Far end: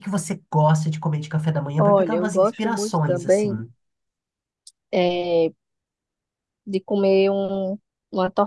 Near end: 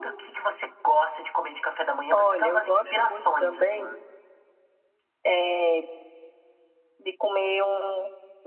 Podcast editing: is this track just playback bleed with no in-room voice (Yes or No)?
Yes